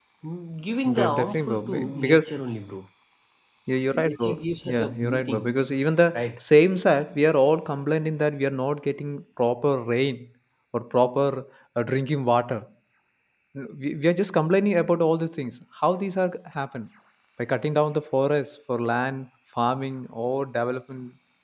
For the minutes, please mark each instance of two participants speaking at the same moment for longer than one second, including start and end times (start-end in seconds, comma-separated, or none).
0.8-2.3, 3.9-5.5